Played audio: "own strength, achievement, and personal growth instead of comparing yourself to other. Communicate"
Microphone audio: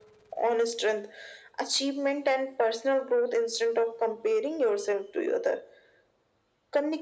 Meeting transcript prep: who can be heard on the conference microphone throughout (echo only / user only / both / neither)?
echo only